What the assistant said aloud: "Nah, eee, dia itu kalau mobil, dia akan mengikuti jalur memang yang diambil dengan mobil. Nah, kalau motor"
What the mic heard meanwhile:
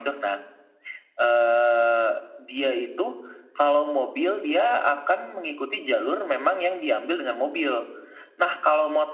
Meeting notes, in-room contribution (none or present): none